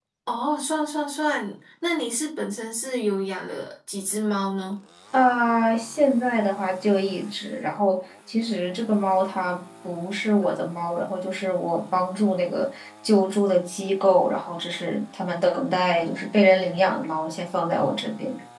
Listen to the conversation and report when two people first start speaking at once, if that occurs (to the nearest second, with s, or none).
none